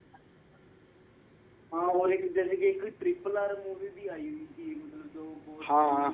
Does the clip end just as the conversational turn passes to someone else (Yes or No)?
Yes